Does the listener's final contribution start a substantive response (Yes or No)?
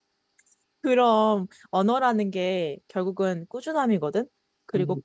No